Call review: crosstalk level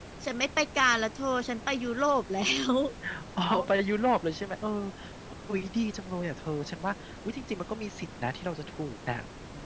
none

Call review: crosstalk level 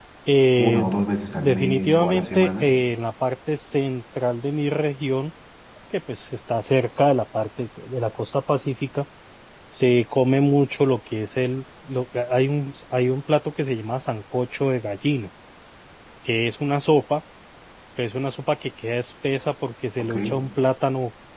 present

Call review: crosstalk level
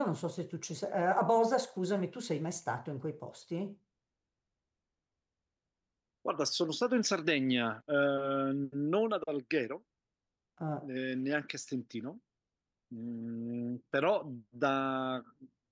none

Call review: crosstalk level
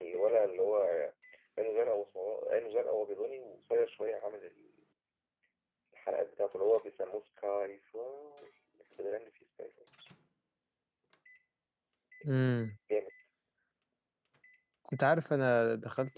none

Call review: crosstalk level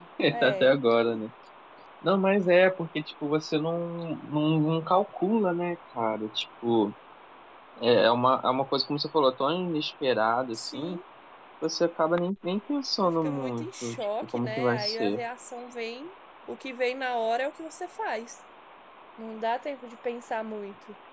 present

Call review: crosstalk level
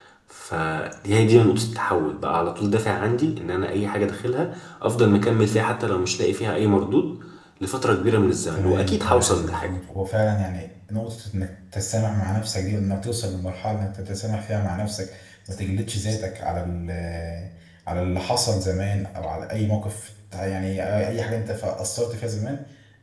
present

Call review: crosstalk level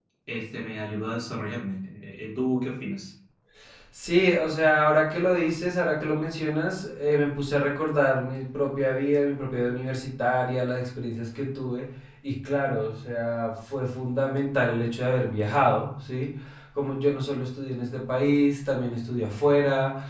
none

